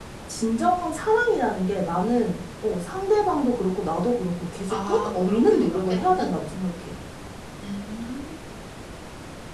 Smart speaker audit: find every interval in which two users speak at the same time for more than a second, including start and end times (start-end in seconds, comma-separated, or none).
4.7-6.4